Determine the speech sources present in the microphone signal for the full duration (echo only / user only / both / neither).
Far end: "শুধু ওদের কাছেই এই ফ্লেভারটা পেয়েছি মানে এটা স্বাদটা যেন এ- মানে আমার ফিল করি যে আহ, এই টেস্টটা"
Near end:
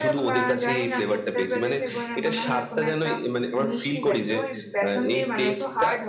both